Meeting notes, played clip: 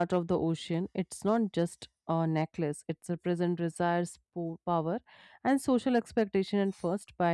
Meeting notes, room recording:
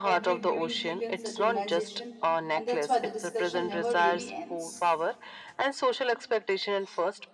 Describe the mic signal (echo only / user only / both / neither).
both